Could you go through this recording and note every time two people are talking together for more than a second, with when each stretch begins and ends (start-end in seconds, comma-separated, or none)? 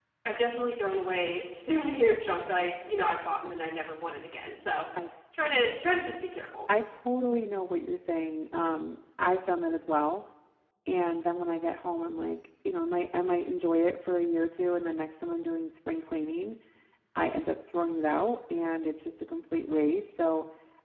none